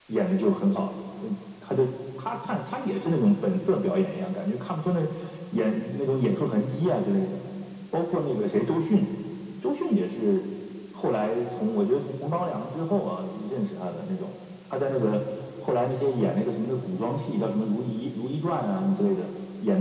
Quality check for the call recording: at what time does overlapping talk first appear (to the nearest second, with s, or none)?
none